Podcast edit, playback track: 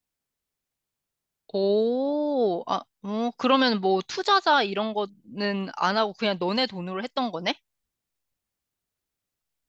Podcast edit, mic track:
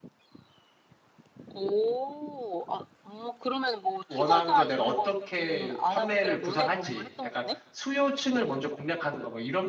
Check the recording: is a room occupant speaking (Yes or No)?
Yes